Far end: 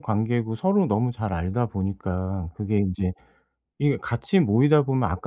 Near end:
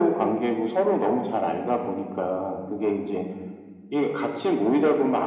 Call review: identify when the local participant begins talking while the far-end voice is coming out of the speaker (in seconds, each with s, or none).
none